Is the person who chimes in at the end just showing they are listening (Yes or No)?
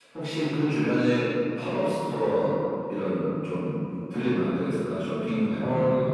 No